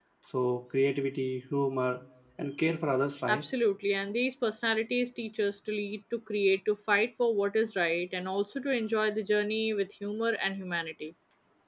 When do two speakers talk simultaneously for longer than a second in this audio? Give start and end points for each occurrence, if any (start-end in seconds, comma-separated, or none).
none